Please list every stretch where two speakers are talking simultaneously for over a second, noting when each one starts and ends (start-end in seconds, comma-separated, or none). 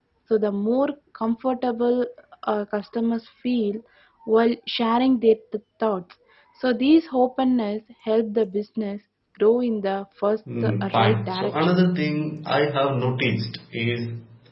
10.6-11.8